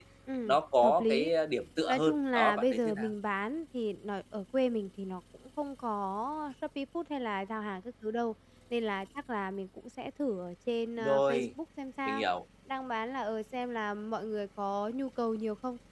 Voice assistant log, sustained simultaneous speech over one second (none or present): present